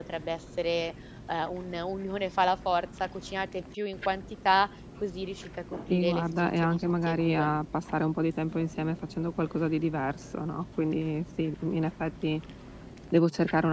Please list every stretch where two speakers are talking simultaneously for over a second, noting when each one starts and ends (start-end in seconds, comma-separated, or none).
5.9-7.5